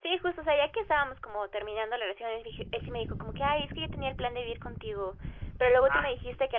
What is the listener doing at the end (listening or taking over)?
listening